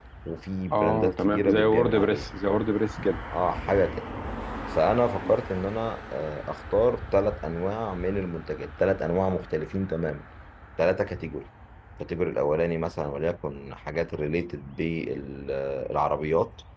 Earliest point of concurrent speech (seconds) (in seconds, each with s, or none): 0.7 s